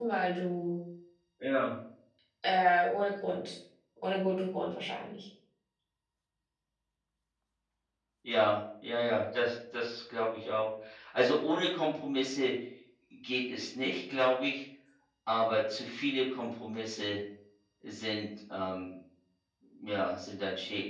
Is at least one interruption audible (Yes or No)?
No